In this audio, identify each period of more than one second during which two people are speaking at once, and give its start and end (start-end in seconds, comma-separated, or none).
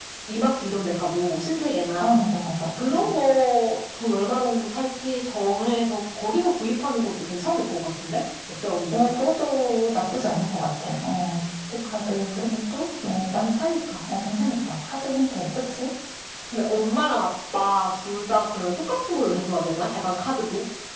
none